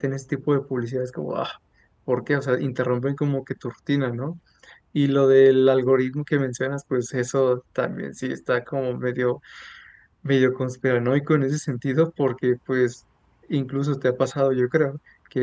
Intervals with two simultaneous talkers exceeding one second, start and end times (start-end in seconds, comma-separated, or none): none